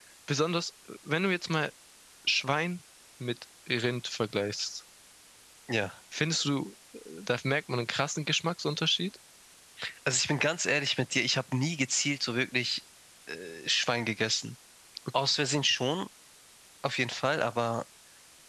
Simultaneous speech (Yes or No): No